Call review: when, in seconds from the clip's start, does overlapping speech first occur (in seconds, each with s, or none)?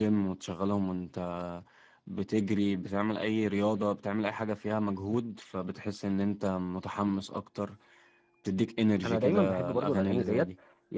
9.0 s